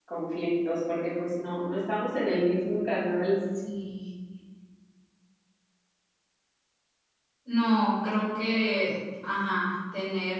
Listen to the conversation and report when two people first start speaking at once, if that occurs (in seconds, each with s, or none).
none